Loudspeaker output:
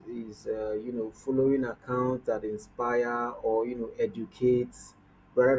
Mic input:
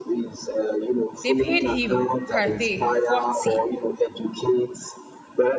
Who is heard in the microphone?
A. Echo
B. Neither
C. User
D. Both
D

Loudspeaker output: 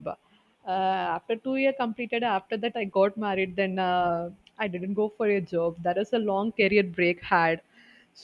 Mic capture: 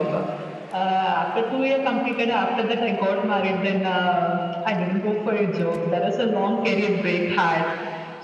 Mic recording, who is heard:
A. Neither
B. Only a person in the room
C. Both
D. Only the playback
D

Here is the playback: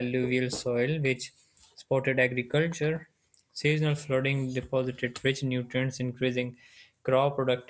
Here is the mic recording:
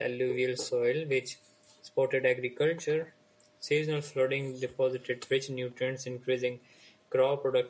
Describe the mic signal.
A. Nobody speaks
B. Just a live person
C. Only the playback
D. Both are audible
C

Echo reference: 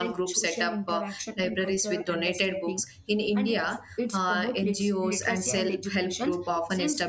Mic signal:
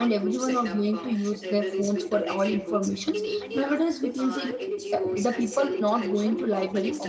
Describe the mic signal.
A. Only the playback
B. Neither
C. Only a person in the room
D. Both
D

